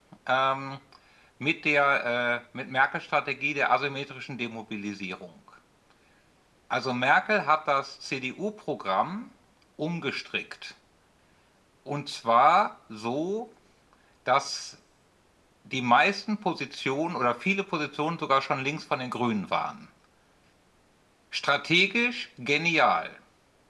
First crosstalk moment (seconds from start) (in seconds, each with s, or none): none